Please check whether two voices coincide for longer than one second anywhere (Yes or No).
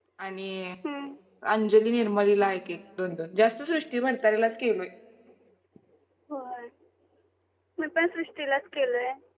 No